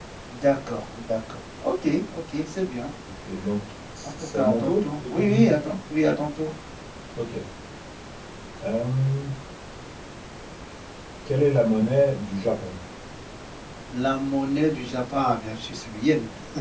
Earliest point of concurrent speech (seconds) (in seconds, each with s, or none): 4.0 s